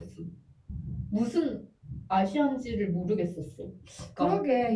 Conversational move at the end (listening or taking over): taking over